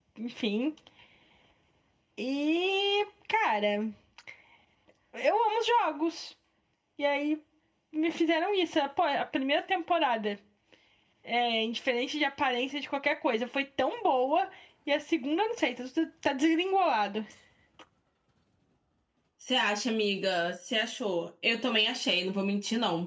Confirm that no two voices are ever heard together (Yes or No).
Yes